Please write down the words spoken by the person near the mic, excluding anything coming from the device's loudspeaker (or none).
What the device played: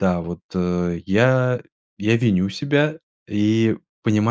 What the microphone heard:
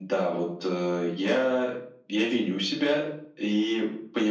none